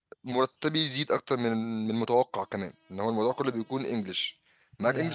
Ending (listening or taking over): listening